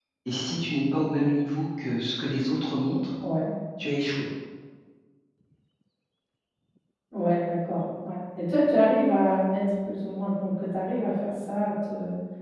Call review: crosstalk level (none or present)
none